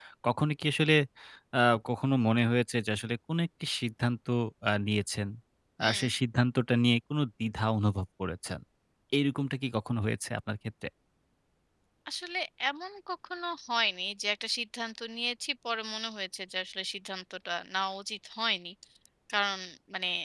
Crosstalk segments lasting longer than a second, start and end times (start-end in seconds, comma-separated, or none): none